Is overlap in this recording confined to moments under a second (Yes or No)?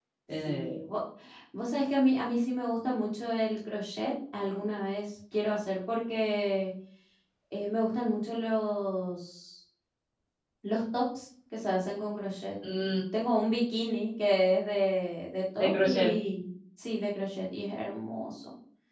Yes